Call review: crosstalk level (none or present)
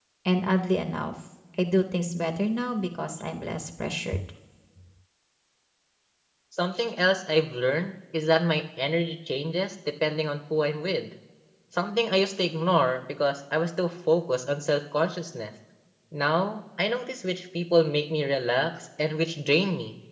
none